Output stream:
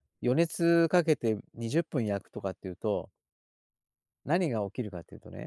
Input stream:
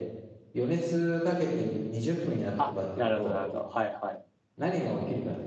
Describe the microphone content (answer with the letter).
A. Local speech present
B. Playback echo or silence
A